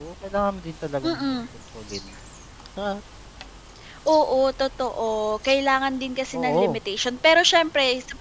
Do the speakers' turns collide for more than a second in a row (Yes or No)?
No